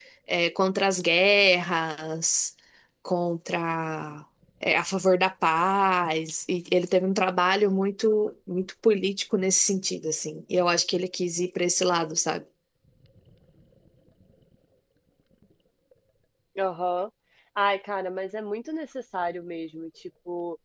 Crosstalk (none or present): none